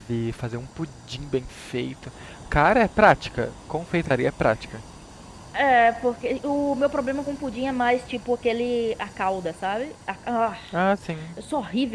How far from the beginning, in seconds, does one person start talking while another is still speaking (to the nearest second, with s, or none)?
none